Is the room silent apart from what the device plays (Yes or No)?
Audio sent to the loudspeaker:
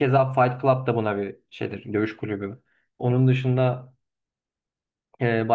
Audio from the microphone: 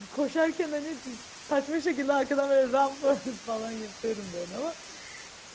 No